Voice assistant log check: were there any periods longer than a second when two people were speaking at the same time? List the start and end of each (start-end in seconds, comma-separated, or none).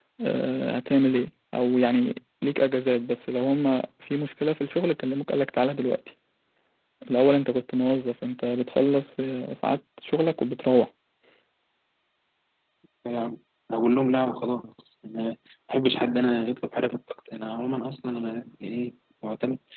none